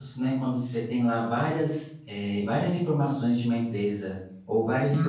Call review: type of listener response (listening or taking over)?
listening